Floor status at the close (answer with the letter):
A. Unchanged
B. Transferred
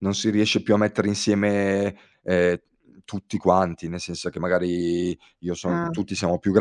A